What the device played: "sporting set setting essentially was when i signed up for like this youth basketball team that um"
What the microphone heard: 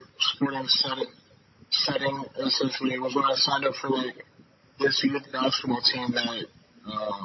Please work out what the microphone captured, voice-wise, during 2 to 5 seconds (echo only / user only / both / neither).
echo only